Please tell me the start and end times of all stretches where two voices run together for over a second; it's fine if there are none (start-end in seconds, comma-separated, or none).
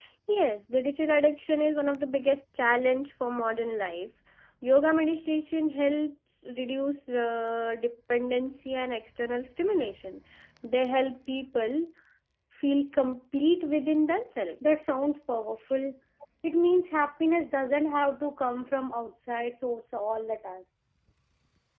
none